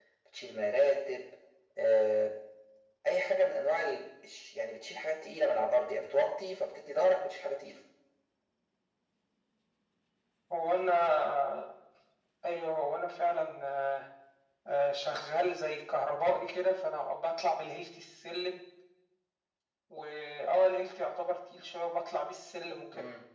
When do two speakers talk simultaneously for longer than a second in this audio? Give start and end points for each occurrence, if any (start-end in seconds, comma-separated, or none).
none